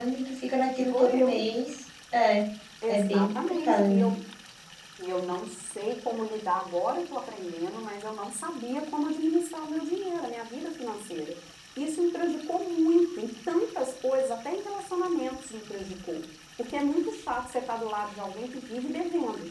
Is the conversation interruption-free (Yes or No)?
No